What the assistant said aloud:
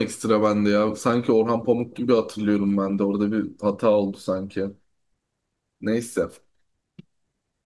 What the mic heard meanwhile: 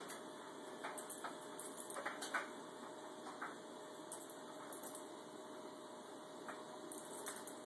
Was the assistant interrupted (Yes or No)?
No